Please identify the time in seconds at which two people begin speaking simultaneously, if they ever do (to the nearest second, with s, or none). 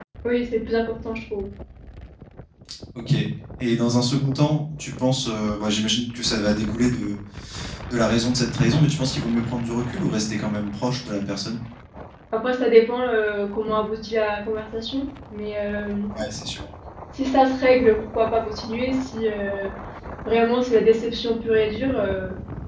none